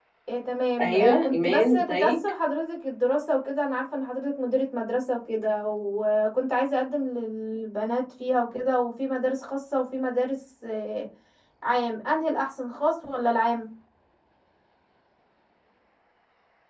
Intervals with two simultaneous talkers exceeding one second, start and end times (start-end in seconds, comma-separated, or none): 0.8-2.2